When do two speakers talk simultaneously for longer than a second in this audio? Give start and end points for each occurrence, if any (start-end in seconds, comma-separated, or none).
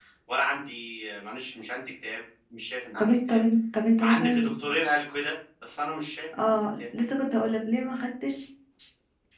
none